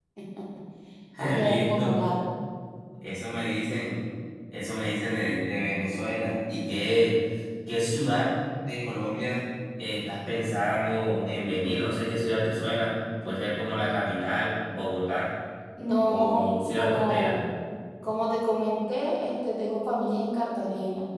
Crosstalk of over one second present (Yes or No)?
Yes